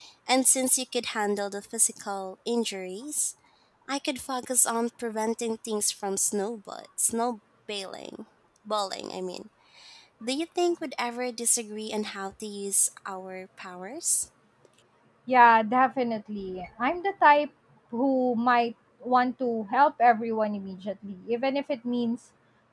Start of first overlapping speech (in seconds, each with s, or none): none